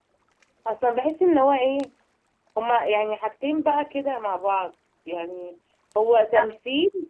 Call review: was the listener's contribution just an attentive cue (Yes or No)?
Yes